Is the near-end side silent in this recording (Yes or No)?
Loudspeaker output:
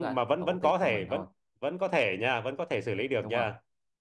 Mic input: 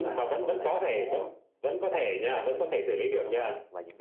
No